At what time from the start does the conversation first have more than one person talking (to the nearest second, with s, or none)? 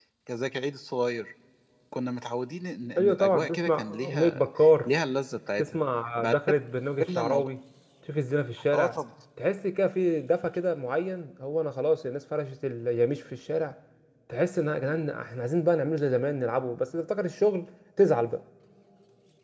3 s